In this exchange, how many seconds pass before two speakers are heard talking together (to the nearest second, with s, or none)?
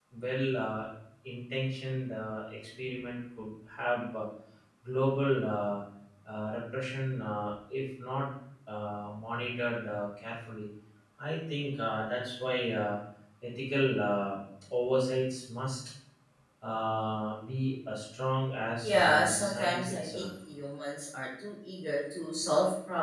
19 s